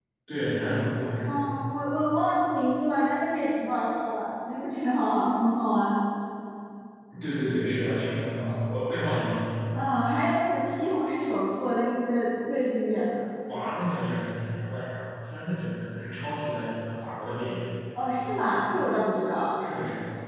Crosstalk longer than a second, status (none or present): none